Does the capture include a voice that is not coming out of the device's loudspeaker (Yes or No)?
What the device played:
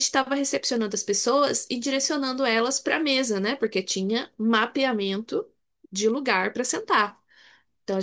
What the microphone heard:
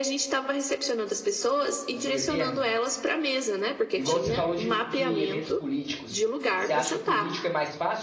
Yes